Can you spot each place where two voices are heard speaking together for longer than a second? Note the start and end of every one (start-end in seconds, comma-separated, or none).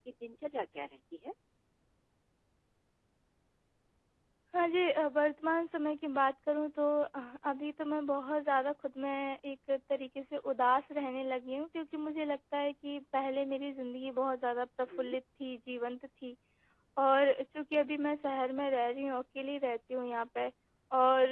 none